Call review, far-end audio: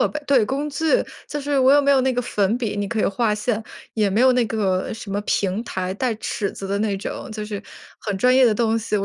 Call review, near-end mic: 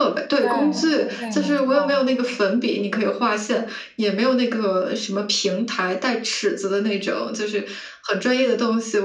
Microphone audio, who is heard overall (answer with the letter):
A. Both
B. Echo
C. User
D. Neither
A